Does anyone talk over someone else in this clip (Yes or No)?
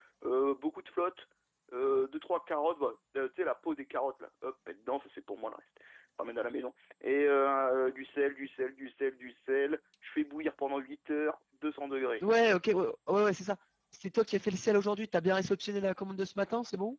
No